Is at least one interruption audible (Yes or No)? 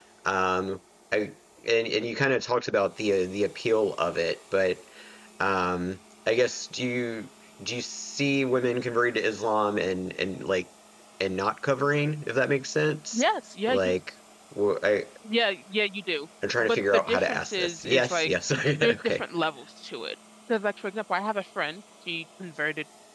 Yes